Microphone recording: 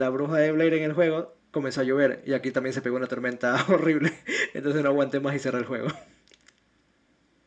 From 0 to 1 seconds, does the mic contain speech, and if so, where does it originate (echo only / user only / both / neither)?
echo only